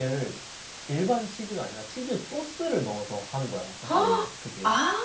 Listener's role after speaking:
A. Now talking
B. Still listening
A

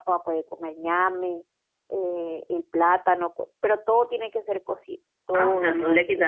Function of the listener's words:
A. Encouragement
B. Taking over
B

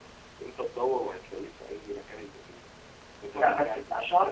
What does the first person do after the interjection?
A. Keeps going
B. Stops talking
B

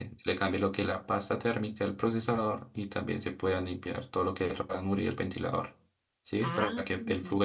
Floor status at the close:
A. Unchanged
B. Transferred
A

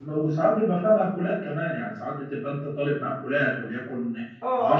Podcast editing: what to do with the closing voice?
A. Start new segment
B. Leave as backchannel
A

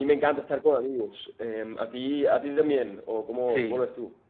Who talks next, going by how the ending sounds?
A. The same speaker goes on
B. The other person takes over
B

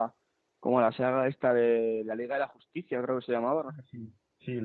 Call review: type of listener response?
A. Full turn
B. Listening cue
A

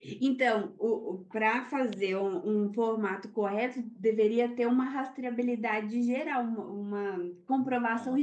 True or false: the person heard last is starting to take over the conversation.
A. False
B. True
A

